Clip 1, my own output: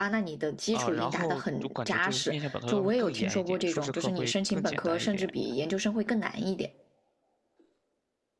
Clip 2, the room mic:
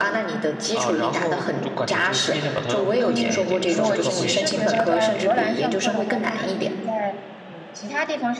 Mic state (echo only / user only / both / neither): both